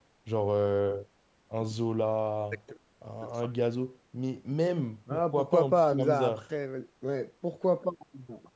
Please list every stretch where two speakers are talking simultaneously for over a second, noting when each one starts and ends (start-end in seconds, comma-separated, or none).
5.1-6.4